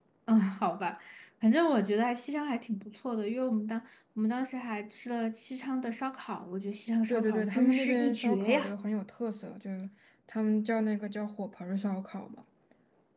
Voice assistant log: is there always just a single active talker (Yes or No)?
No